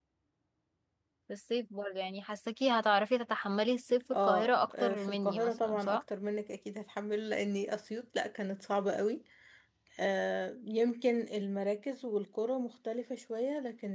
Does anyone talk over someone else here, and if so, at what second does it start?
4.1 s

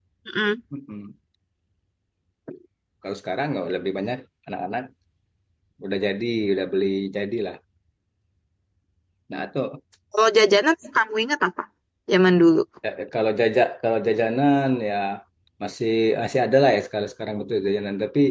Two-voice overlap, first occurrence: none

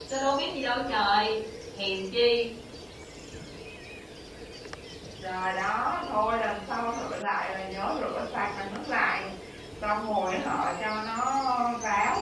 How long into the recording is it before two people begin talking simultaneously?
none

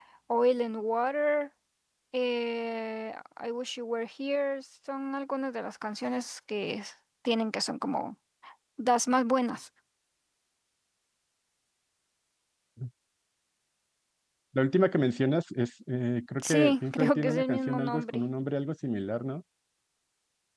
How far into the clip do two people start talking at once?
16.4 s

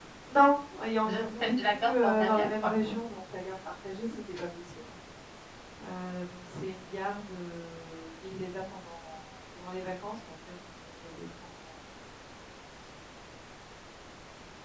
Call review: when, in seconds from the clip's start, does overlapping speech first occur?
1.0 s

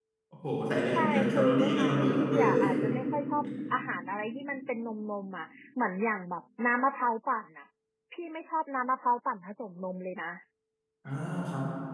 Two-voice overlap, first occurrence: 0.9 s

